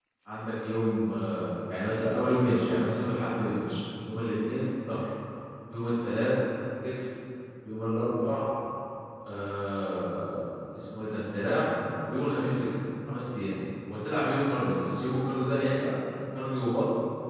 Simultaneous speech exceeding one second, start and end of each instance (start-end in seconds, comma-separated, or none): none